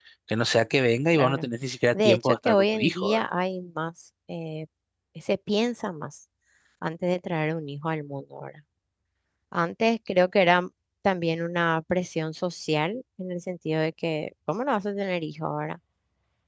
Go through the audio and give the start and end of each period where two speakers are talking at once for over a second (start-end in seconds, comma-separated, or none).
1.9-3.3